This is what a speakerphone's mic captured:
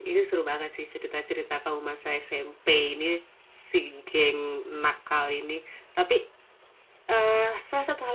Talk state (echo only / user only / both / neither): user only